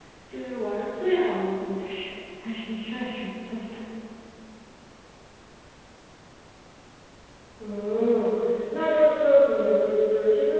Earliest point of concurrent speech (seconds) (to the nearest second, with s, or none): none